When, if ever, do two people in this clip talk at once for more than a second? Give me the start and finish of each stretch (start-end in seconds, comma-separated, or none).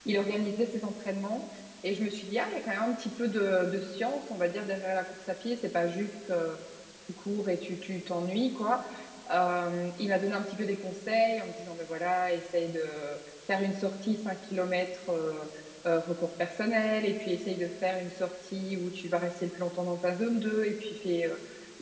none